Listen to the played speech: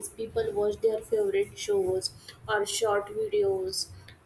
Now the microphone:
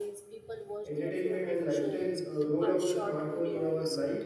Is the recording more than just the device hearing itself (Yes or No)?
Yes